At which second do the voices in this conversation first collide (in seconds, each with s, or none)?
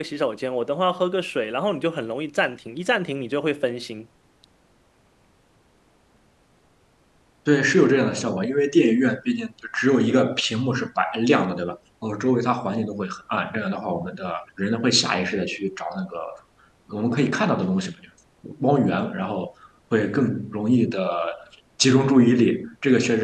none